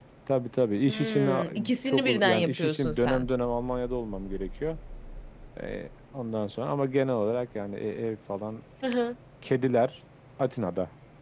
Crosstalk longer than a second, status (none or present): present